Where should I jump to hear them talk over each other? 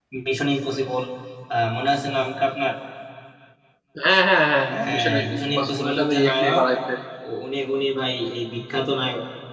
4.7 s

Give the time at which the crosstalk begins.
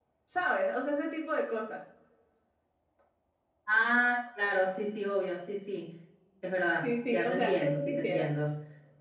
6.8 s

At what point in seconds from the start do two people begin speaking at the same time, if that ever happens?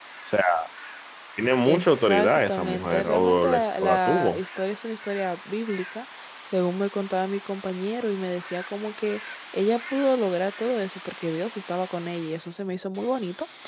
1.6 s

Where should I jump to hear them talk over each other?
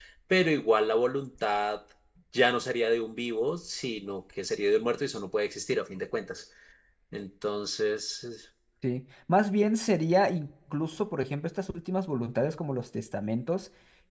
none

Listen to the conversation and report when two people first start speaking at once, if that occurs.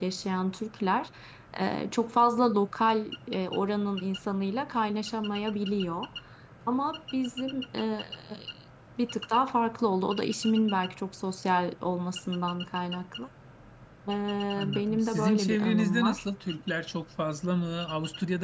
14.7 s

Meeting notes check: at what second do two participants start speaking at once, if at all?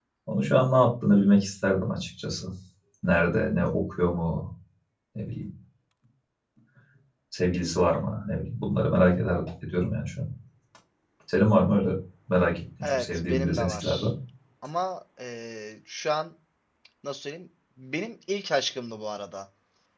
12.8 s

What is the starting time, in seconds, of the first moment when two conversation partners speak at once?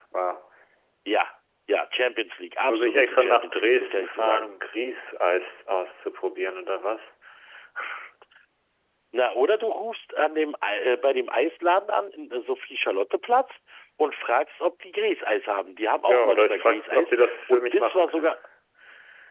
2.7 s

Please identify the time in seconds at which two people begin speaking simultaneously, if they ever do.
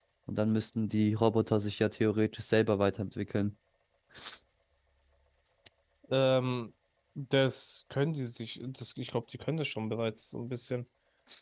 none

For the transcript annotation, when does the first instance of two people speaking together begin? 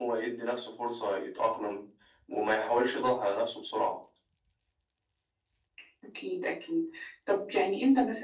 none

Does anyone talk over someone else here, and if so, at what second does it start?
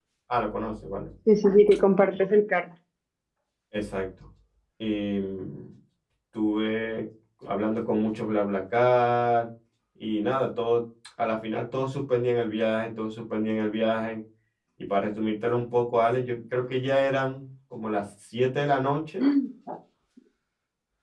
none

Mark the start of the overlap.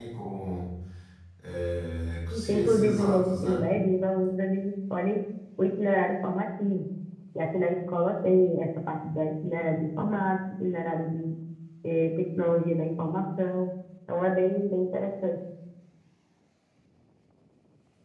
2.3 s

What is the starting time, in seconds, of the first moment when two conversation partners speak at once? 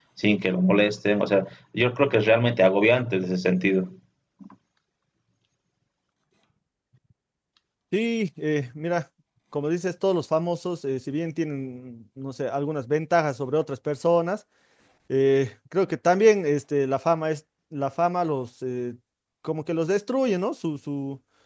none

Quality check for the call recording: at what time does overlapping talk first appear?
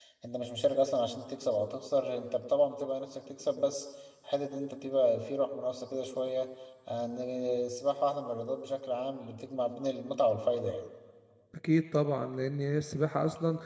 none

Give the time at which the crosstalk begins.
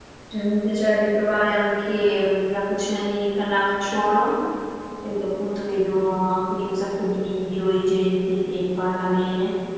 none

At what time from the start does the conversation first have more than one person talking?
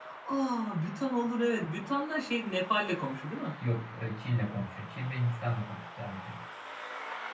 none

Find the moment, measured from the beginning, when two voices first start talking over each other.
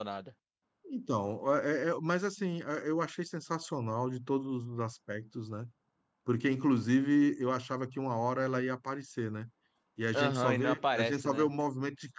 10.1 s

